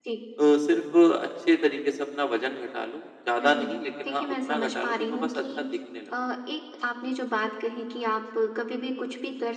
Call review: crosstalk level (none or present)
present